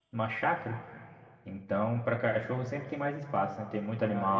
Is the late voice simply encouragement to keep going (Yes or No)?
No